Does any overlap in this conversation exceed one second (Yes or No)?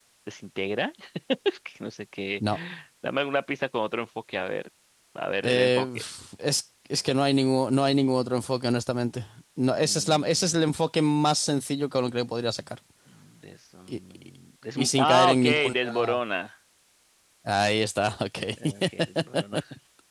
Yes